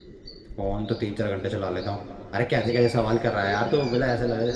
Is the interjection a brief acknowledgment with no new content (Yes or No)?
Yes